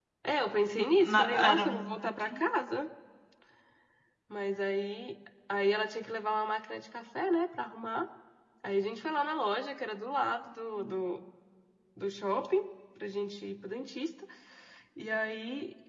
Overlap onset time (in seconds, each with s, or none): 0.8 s